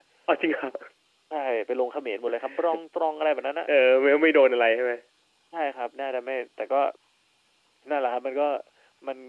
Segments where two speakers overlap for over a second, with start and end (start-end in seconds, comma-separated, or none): none